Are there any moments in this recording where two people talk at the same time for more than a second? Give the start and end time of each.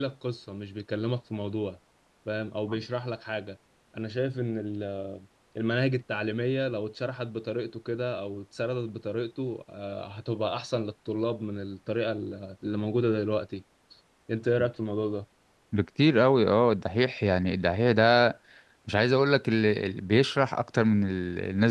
none

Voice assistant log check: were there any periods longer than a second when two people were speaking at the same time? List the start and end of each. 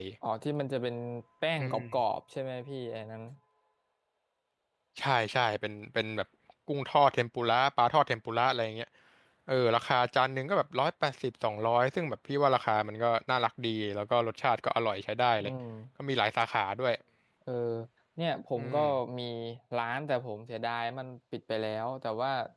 none

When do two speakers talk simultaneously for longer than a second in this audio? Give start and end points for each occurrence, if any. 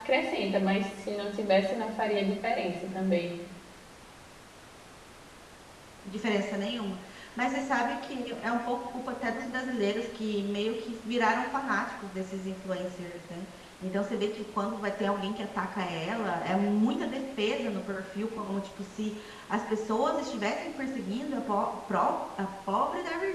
none

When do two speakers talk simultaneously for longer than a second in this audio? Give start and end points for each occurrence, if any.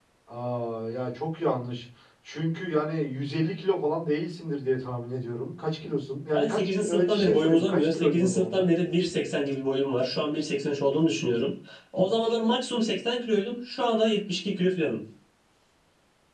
6.3-8.6

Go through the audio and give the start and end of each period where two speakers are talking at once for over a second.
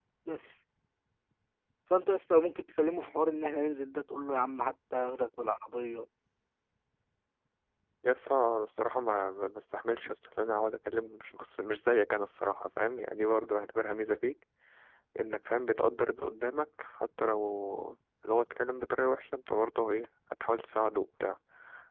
none

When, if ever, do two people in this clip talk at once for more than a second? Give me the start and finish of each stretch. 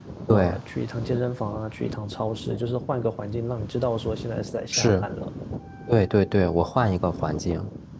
none

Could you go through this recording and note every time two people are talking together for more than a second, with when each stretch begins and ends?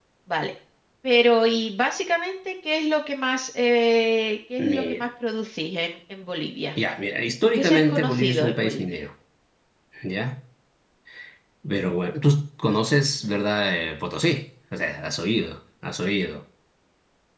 7.4-8.8

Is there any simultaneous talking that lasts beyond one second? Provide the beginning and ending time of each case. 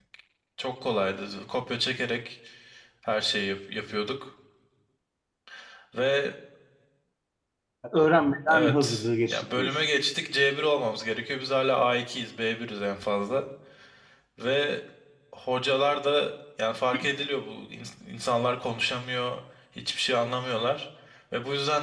8.5-9.7

